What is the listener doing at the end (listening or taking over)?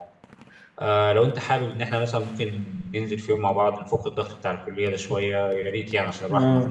taking over